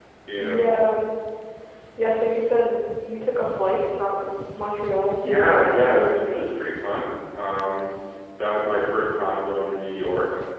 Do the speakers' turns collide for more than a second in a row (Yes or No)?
Yes